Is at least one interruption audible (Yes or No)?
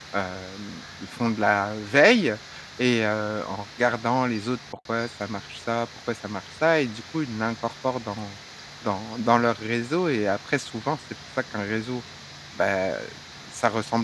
No